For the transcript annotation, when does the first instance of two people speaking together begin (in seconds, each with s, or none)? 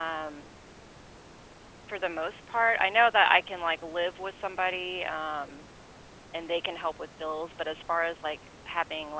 none